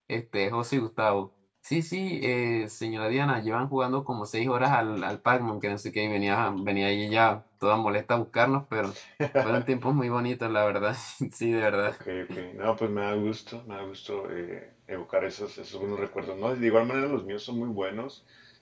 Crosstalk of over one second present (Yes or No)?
No